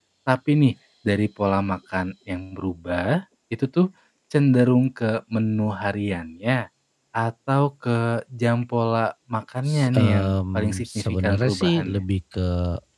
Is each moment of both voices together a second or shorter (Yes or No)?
No